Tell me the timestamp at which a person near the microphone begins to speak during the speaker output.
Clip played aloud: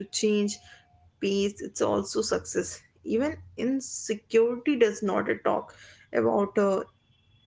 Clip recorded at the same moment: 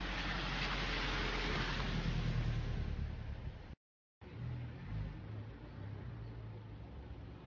none

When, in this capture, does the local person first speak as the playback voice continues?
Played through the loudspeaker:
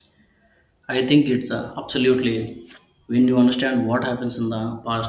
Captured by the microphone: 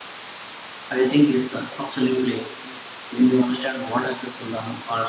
none

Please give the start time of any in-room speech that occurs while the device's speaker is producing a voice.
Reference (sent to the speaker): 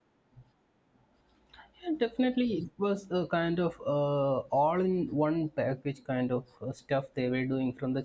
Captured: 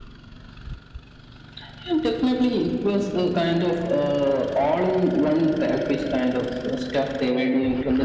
none

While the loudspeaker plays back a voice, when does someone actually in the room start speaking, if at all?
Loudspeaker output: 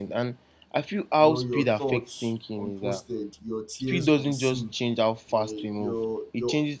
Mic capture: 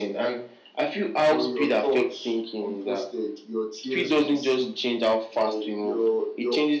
none

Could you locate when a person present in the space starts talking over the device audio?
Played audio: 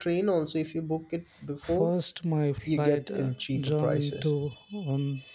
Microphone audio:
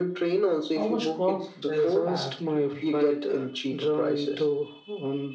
0.7 s

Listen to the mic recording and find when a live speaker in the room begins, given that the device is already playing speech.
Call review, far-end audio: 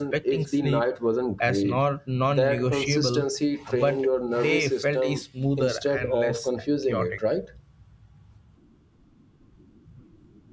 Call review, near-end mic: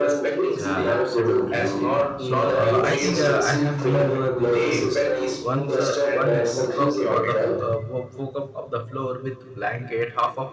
0.5 s

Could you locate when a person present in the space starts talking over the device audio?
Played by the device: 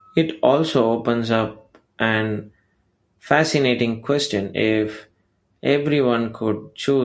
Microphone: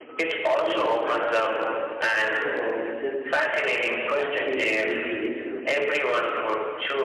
0.5 s

